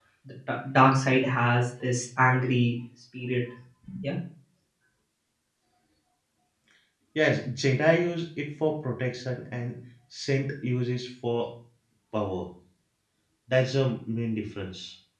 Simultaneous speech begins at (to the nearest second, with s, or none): none